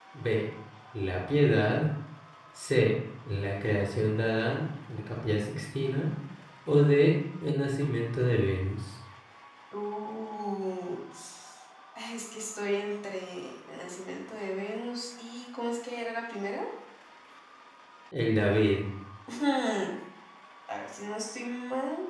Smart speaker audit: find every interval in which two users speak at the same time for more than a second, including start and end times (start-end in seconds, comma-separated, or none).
none